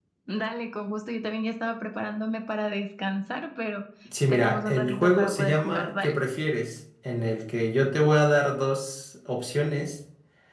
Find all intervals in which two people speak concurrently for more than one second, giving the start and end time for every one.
4.3-6.1

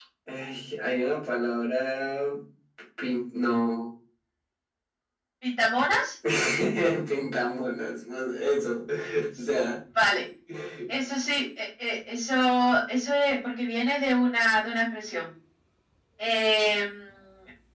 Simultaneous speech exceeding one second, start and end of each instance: none

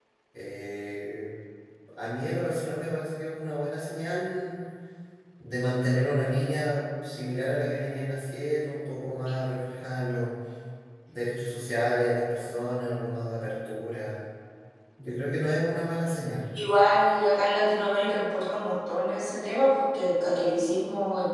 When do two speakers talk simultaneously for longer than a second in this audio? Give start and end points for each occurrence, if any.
none

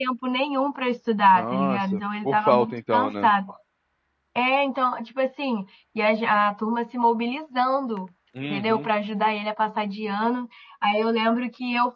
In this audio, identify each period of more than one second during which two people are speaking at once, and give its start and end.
1.4-3.3

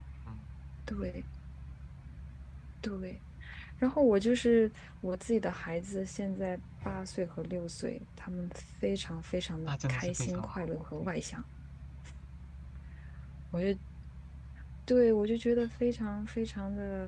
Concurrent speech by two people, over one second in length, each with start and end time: 9.7-11.1

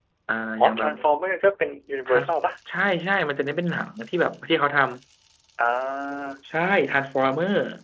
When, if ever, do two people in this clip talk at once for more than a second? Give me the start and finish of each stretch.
none

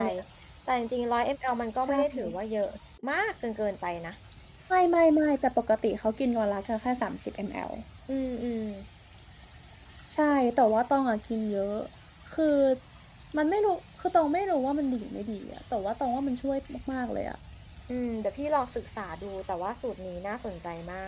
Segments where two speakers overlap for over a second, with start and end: none

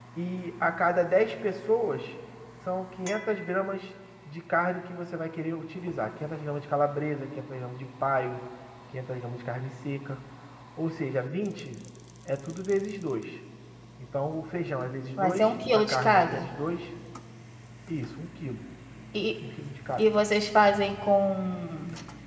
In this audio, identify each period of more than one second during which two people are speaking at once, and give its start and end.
15.2-16.5

